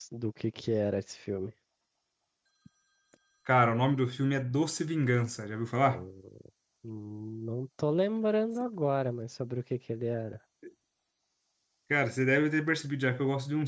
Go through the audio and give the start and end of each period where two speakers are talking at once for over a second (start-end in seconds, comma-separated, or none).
none